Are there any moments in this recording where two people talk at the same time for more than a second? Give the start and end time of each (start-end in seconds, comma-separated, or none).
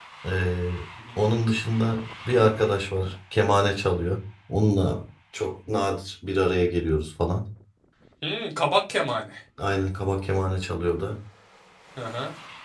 none